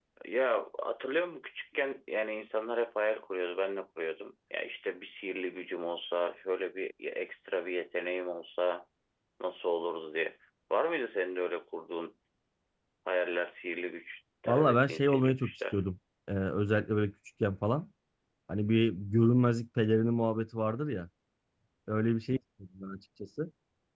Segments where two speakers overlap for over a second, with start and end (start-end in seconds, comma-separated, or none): 14.5-15.8